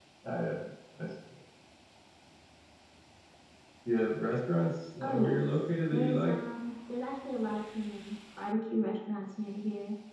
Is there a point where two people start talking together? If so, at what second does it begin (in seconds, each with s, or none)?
5.0 s